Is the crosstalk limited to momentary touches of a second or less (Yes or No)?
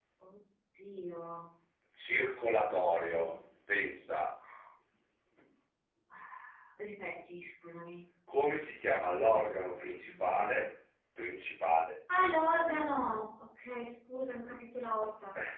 No